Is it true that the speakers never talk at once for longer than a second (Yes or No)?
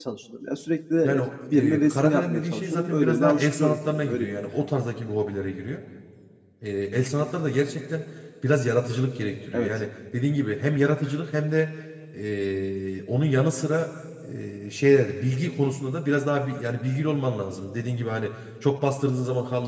No